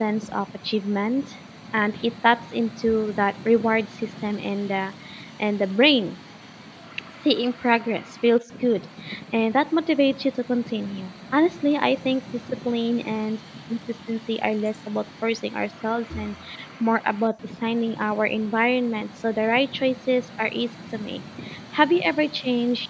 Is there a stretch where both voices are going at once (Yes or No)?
No